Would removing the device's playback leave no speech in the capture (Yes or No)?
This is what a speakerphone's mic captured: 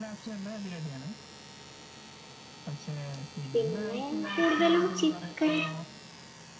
No